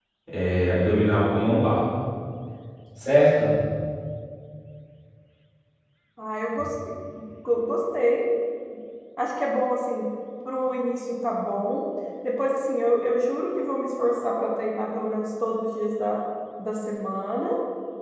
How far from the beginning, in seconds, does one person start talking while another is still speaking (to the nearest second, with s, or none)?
none